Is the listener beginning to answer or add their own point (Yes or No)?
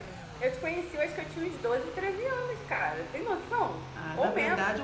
Yes